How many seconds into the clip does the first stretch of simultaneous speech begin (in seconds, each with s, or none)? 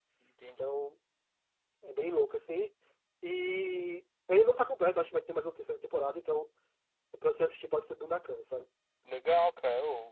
none